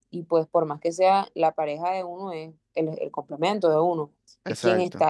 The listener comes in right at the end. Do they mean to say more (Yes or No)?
No